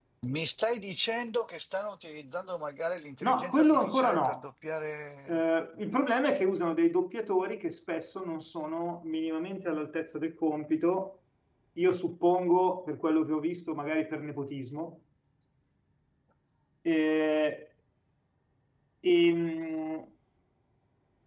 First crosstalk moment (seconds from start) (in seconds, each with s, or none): 3.2 s